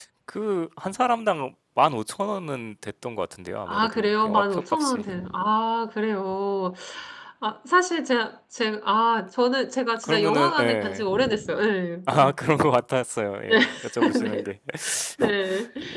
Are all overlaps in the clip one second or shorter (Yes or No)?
No